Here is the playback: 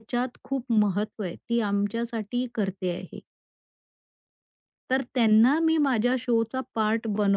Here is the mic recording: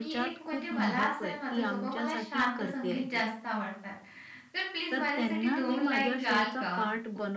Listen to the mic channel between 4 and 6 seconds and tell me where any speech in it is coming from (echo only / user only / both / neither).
both